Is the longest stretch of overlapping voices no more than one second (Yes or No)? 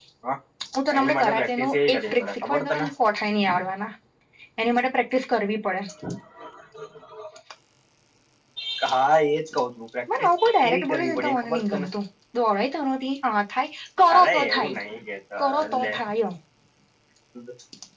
No